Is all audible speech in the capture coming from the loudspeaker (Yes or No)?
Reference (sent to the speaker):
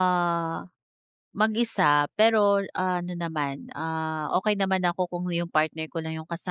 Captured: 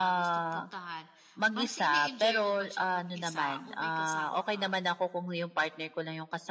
No